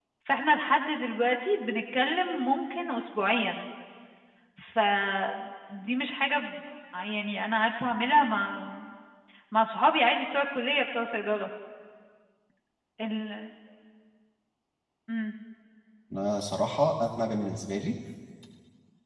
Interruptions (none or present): none